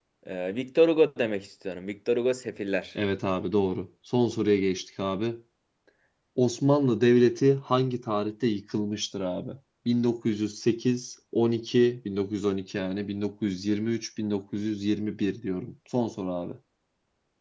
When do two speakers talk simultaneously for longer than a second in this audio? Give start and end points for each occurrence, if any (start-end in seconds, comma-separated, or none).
none